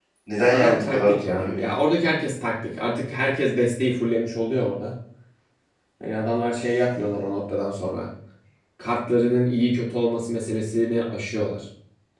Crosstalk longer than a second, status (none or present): present